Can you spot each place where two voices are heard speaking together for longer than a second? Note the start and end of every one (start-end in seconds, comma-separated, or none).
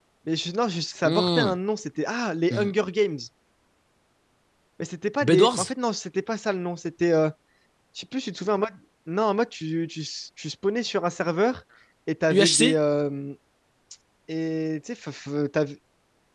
none